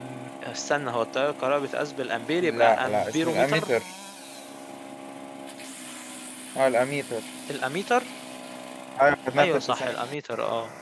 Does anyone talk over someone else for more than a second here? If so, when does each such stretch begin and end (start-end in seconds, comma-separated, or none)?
2.4-3.7